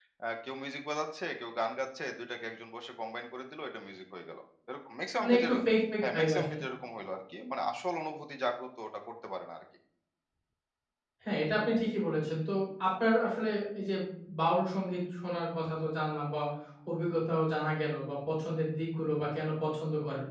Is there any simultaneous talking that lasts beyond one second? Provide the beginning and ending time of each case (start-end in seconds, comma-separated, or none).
none